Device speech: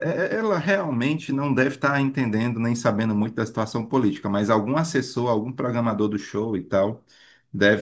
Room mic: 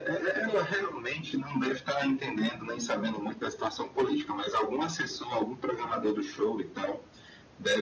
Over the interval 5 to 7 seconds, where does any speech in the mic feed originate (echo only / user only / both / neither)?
echo only